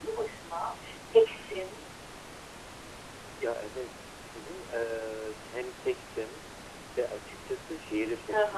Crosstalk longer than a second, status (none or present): none